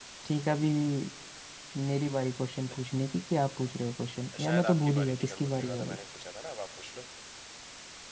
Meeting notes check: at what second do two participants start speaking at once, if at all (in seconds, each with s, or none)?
4.3 s